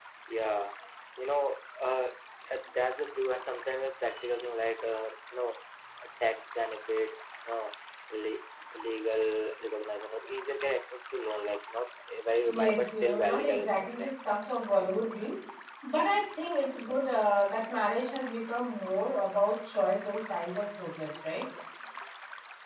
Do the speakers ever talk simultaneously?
Yes, from 12.4 s

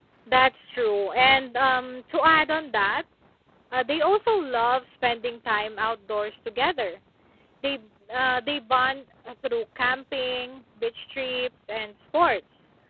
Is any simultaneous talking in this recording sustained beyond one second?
No

